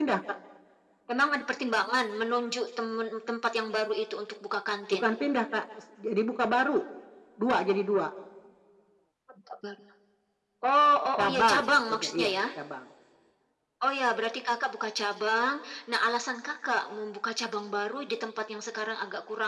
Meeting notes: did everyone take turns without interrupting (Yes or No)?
No